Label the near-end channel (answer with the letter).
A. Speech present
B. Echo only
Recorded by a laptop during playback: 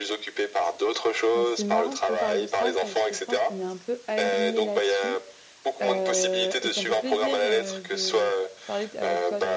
A